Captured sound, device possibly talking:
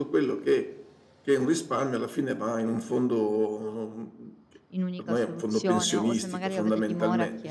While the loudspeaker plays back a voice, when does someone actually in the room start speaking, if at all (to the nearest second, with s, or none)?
5 s